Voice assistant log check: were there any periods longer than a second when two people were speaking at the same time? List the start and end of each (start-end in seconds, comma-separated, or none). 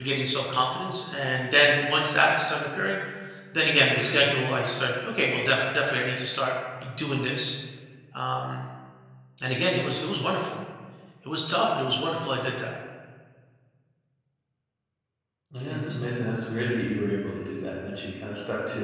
none